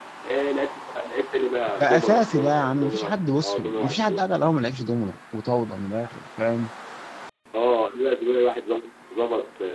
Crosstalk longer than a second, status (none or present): present